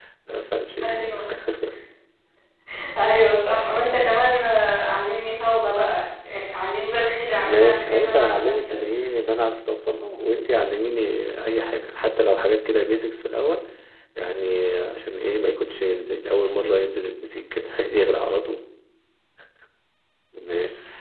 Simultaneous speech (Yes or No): Yes